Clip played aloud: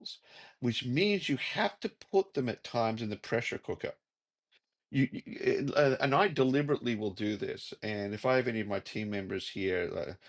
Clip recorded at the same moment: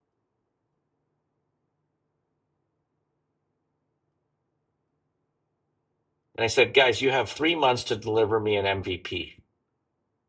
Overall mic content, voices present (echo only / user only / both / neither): user only